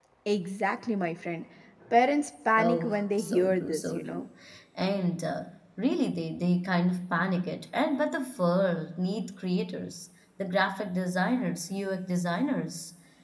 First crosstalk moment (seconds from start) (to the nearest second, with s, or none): 3 s